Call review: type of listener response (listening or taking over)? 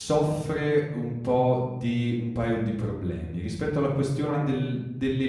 listening